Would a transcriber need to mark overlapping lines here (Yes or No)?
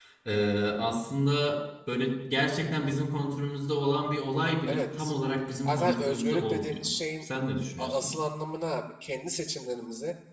Yes